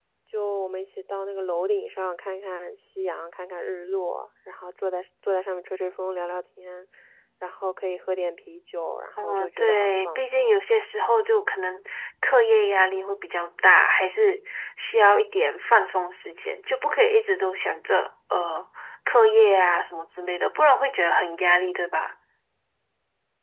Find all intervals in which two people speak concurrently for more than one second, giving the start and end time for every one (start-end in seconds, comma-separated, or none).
9.2-10.6